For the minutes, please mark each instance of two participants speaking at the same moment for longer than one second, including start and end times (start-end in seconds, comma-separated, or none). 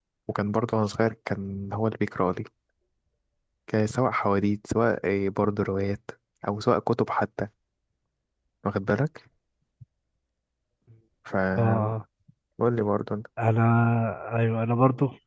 none